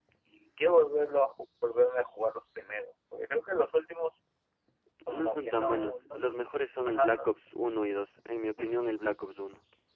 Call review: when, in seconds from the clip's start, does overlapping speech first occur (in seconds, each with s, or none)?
5.1 s